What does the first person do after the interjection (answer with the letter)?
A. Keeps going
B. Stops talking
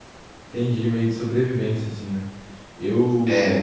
A